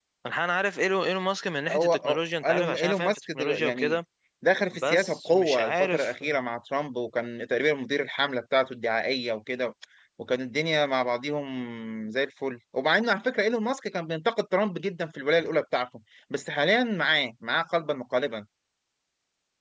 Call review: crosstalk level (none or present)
present